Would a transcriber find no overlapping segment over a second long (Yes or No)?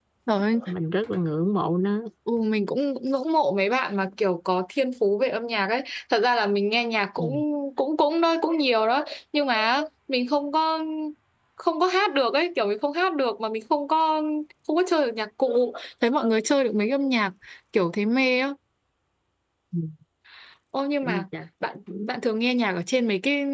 Yes